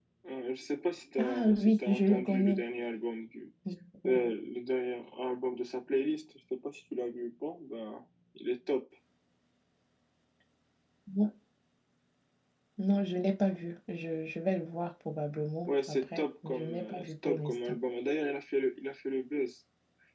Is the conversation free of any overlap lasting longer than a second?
No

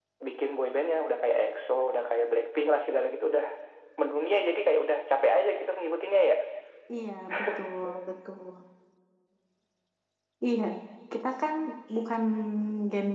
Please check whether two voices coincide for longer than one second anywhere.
No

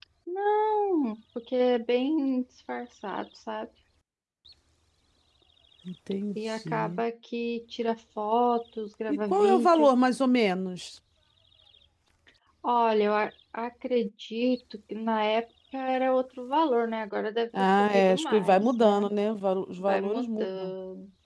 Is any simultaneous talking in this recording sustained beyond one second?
Yes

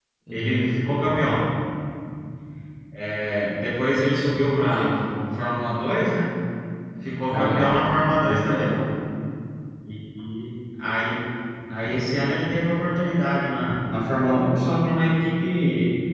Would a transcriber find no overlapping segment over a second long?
No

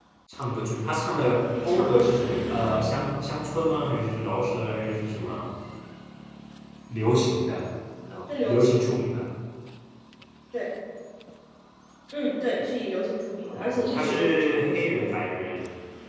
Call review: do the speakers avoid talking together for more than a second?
No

